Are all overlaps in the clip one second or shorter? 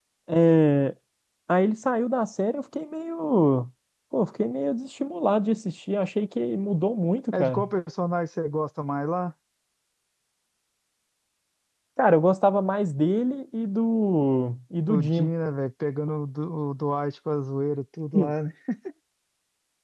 Yes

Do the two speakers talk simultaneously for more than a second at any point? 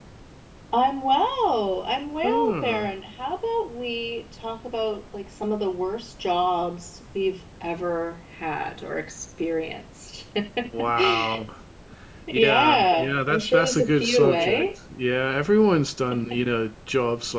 Yes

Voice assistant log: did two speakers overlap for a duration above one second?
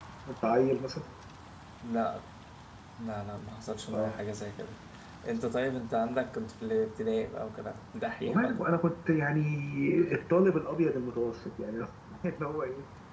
No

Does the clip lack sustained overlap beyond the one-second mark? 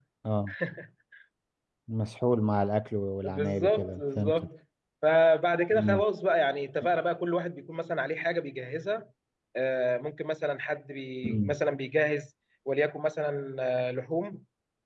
No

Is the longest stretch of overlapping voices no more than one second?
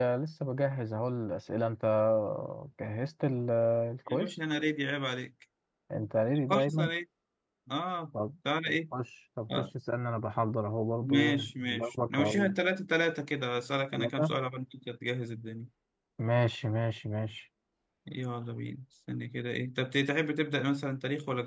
No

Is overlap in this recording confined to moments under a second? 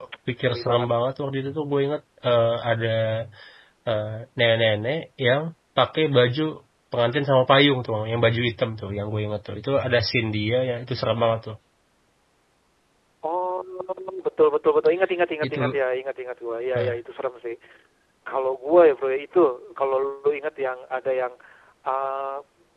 Yes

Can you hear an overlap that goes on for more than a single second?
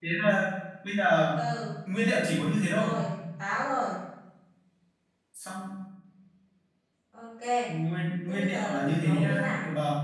Yes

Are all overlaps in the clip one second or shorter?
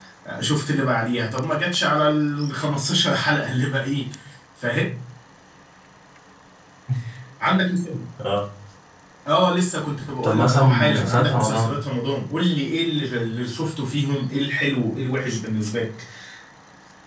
No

